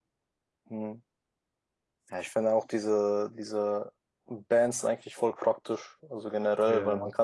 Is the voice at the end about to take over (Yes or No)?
No